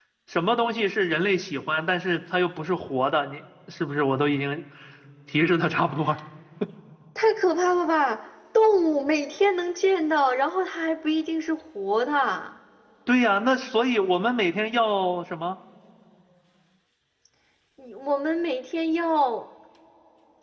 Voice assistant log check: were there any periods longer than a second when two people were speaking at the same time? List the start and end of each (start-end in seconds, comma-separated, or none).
none